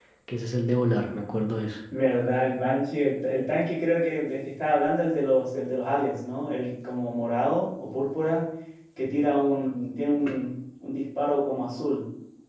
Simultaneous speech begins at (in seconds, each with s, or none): none